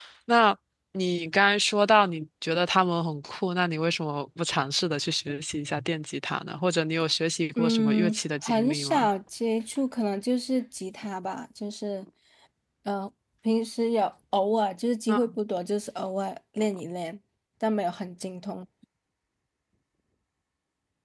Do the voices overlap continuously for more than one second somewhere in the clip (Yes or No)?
Yes